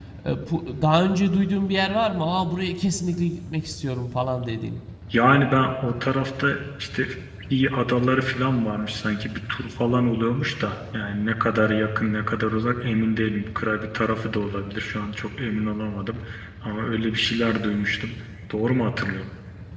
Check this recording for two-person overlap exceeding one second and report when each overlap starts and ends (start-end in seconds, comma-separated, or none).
none